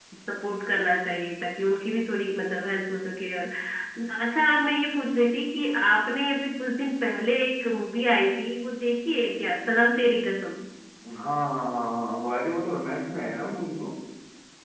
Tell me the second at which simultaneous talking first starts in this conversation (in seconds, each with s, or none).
none